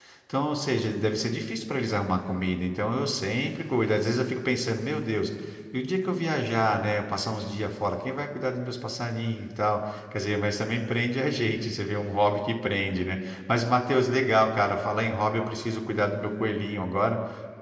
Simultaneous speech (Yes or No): No